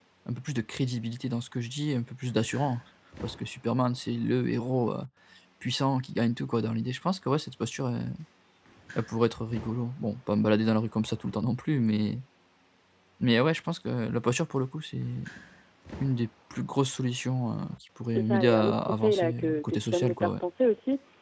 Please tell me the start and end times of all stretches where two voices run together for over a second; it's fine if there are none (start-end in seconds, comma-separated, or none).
18.1-20.3